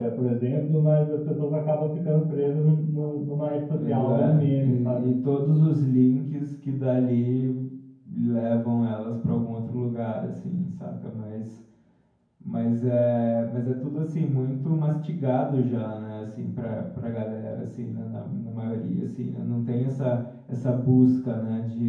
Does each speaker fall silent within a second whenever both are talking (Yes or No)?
No